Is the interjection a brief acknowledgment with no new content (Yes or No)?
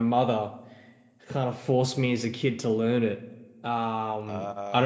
Yes